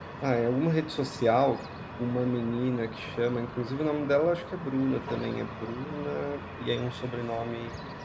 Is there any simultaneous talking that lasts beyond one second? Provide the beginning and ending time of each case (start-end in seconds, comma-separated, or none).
none